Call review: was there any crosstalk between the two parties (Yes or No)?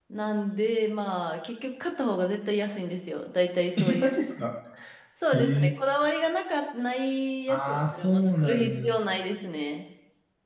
Yes